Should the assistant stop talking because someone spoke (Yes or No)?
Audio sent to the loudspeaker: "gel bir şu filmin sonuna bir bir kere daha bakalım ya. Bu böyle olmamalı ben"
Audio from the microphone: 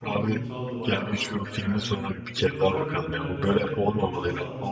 Yes